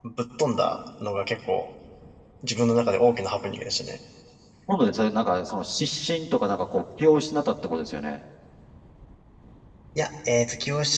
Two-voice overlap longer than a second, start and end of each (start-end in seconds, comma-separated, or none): none